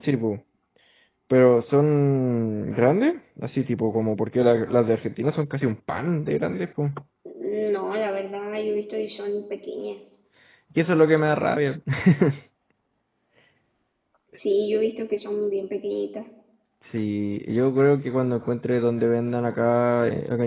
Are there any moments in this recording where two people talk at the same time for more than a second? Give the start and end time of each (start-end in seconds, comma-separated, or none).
none